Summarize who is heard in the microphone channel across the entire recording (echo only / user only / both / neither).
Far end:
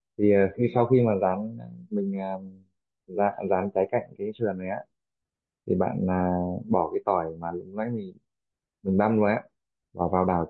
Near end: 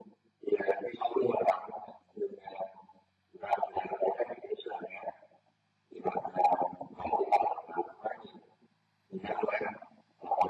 echo only